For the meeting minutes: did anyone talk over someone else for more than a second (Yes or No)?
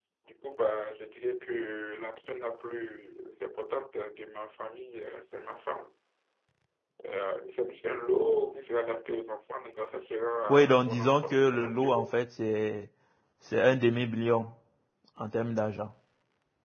Yes